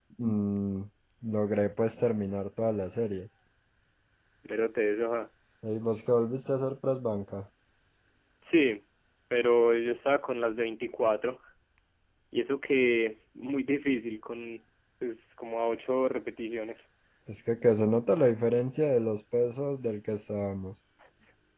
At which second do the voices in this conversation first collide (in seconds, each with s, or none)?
none